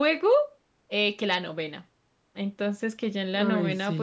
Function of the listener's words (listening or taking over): listening